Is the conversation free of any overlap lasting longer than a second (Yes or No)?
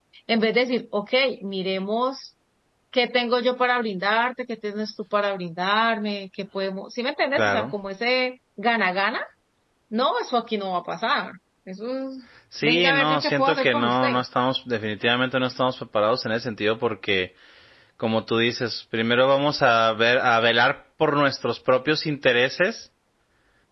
No